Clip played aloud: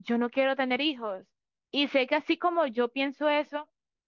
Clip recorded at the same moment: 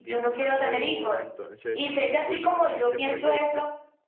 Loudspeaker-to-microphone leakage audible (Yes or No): Yes